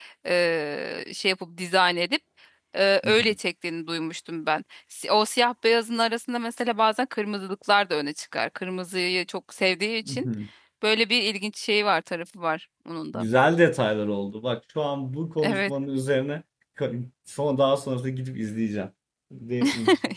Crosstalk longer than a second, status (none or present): none